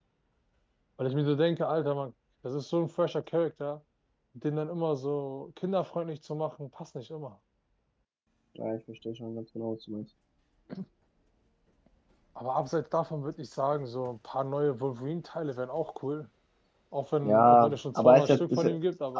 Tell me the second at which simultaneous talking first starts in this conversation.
17.2 s

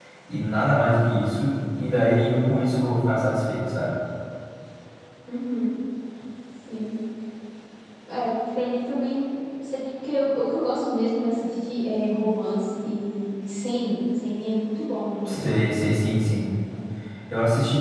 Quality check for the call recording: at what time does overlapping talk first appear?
none

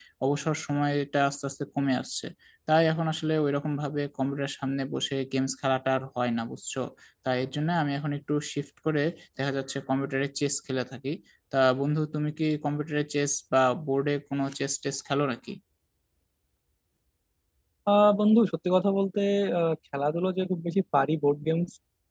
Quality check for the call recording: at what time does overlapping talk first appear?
none

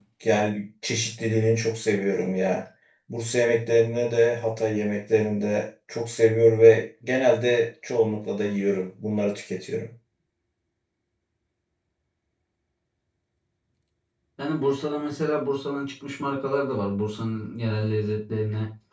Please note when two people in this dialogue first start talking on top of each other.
none

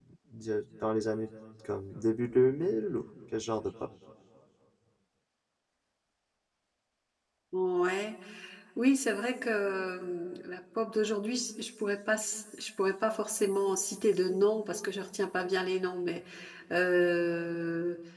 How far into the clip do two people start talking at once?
none

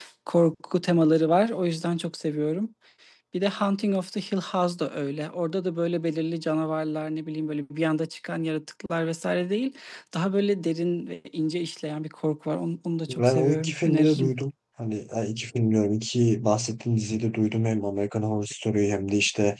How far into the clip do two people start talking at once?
13.1 s

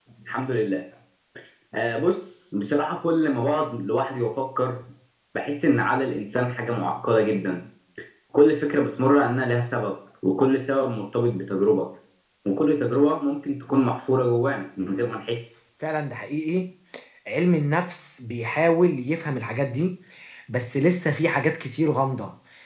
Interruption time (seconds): none

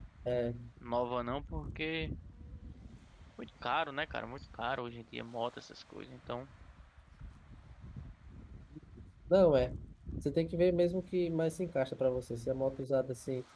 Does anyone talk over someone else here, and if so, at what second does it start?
none

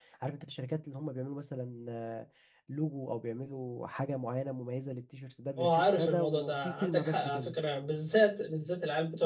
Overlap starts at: 5.6 s

